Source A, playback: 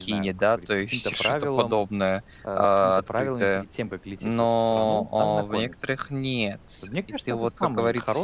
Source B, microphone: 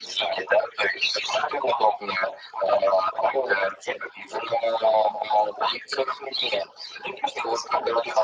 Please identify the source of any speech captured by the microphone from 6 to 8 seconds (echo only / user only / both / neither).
echo only